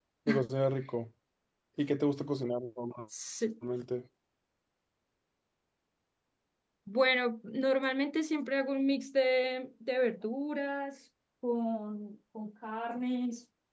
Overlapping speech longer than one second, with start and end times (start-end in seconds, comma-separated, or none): none